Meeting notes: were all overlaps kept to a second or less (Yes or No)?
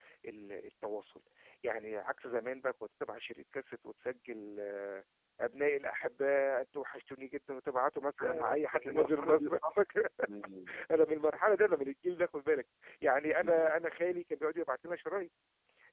No